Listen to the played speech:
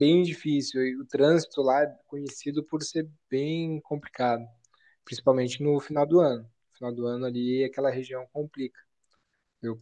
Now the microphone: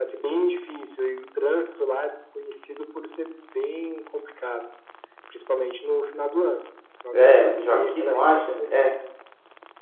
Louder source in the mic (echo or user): user